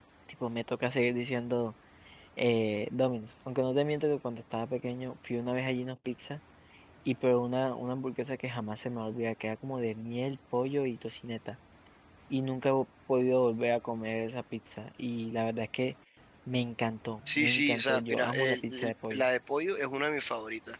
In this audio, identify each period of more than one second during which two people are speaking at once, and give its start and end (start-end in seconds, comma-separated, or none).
17.3-19.3